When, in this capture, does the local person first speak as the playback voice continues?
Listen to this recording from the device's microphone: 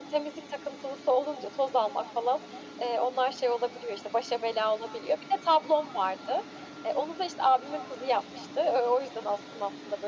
none

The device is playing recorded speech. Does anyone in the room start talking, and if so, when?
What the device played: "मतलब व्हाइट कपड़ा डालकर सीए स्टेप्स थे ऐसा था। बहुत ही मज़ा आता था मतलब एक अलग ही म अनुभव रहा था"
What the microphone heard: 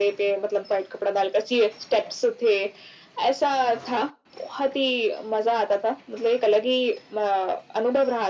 none

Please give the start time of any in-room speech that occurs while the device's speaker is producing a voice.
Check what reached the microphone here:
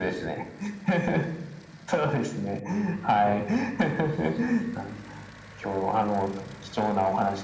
3.2 s

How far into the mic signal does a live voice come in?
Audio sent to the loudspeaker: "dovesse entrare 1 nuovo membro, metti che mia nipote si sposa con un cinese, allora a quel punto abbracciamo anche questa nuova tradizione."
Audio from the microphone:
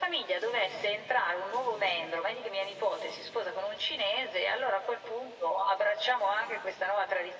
none

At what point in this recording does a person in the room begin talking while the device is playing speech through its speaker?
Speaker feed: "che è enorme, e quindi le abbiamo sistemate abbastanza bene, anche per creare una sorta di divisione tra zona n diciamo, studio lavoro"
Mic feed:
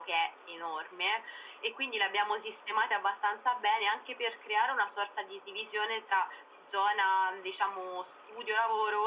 none

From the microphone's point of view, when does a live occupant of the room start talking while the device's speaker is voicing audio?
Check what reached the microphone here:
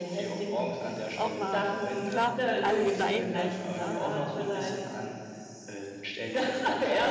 1.1 s

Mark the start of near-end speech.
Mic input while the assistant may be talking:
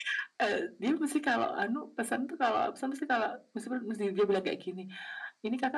none

